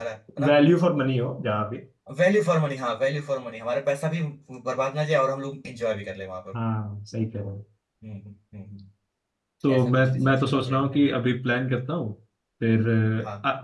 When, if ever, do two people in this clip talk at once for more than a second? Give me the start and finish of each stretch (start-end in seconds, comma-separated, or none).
9.7-11.1